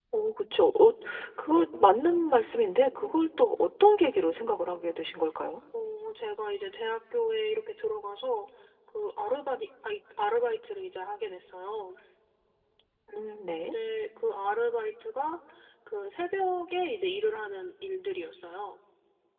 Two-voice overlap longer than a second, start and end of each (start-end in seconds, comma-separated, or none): none